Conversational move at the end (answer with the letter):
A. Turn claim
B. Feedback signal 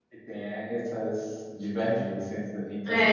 A